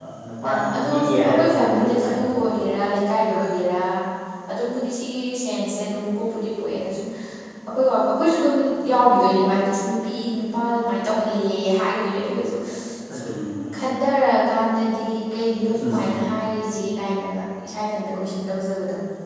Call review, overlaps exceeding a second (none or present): present